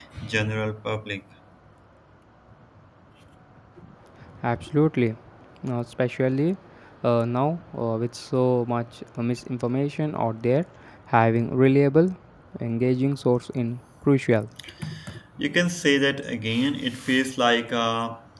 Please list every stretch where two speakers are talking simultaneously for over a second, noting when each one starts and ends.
none

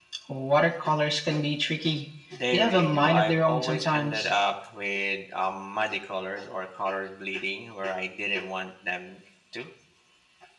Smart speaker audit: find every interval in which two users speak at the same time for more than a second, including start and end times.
2.5-4.3

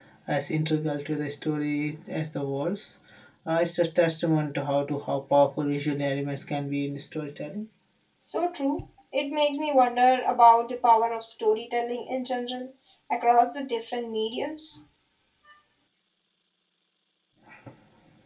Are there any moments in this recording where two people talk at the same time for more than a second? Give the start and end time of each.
none

